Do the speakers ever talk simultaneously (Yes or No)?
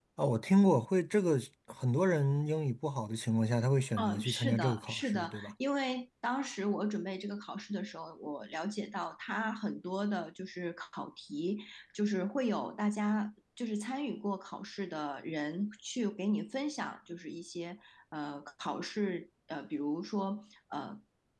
Yes